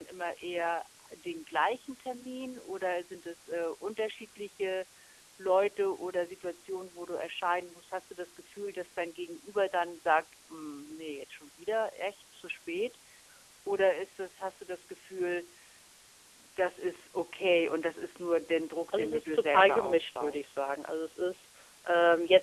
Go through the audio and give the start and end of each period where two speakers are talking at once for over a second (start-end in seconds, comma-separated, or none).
19.0-20.5